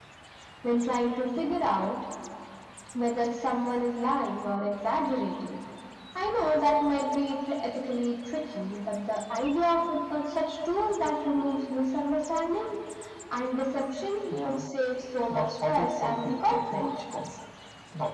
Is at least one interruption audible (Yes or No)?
Yes